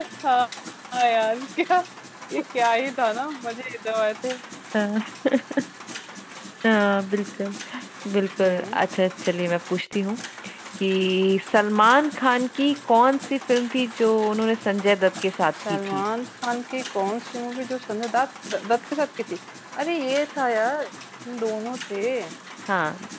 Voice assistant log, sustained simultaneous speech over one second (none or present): none